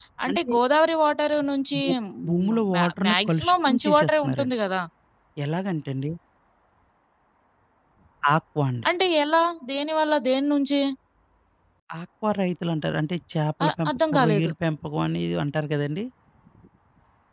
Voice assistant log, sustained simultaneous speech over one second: present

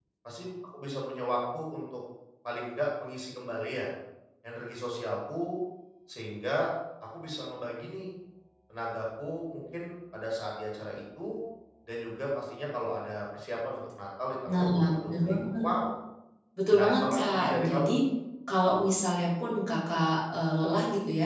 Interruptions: present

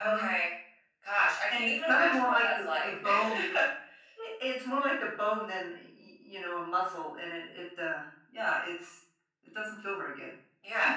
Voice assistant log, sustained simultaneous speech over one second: present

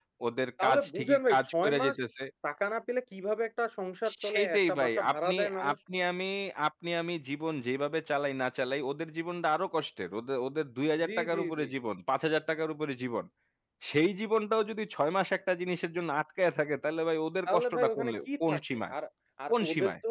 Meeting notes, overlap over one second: present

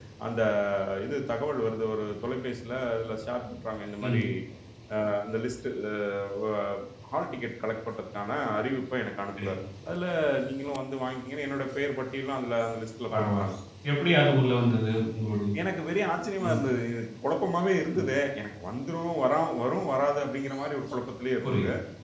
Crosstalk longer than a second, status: none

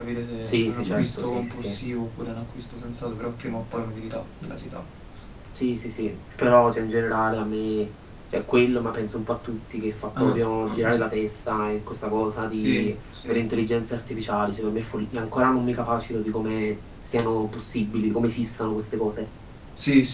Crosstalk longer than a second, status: present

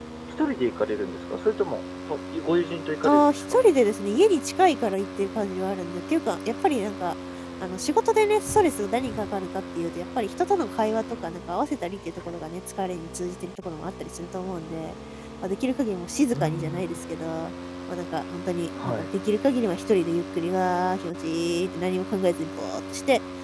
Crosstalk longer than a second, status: none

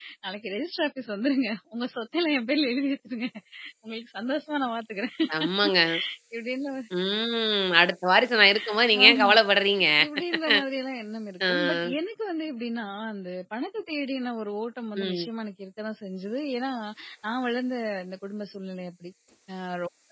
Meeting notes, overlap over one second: none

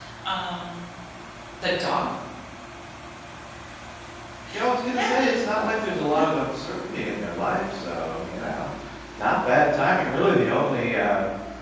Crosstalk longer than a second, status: none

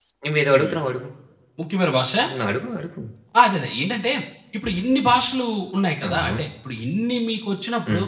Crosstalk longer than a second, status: none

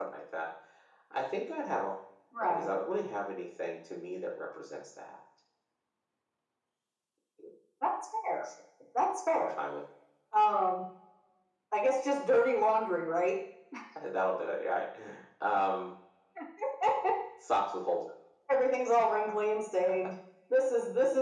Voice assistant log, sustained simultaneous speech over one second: none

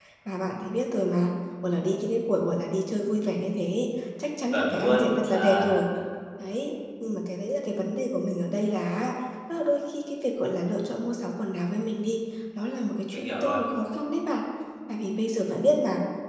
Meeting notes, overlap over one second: present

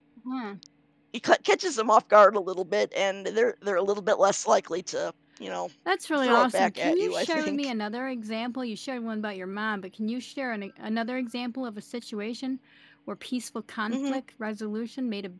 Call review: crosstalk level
present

